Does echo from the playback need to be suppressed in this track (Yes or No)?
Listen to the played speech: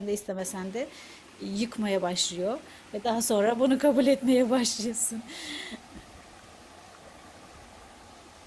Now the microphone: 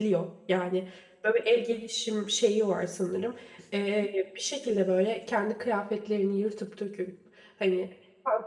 No